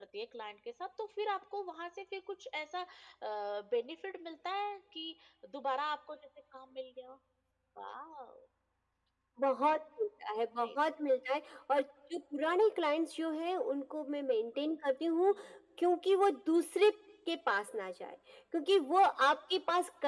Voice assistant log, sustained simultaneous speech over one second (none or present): none